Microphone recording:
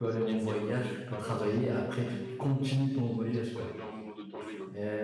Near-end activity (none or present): present